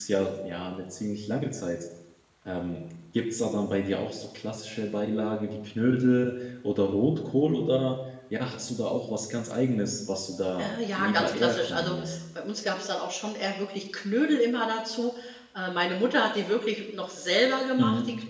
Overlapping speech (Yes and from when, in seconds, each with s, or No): Yes, from 10.6 s